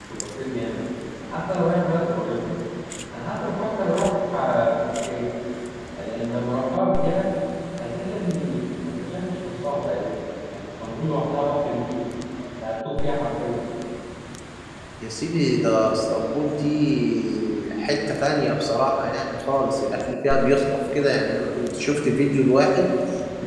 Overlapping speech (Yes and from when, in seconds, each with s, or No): No